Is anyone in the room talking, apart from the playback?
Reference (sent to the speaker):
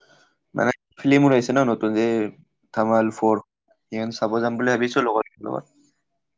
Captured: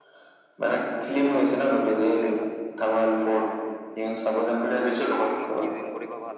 Yes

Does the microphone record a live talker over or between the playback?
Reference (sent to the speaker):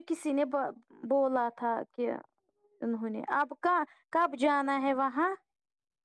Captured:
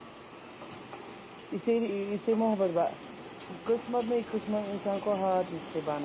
Yes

